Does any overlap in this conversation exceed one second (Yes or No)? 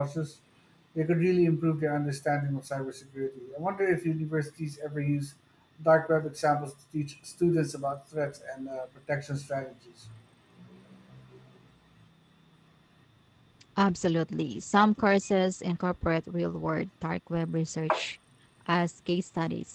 No